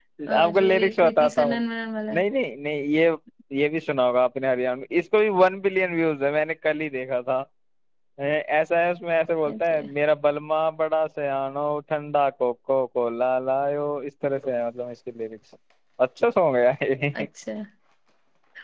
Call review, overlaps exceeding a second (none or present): present